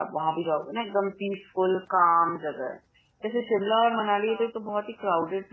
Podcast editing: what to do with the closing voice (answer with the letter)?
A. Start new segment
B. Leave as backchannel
B